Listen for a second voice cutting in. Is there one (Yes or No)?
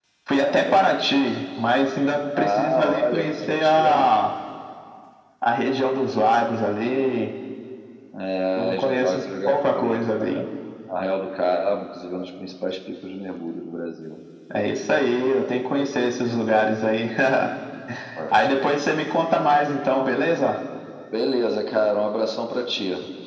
Yes